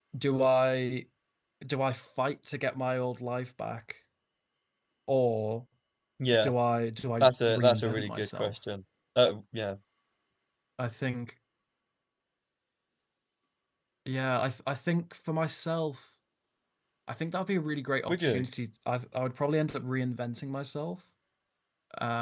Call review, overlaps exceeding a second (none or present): present